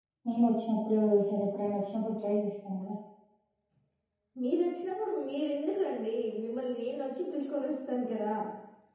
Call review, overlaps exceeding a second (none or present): none